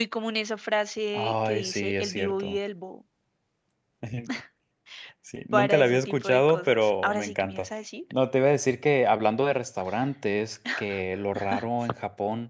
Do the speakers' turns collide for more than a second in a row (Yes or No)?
Yes